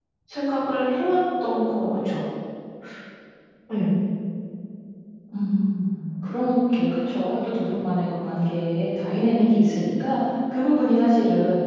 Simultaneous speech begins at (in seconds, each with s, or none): none